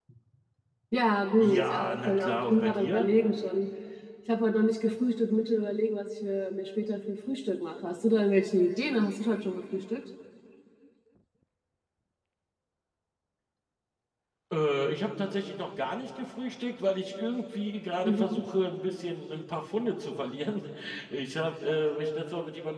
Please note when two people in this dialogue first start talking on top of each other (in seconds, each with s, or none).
1.4 s